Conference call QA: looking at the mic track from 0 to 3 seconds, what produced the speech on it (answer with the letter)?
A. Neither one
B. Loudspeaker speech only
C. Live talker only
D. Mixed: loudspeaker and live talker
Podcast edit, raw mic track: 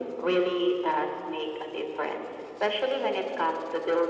B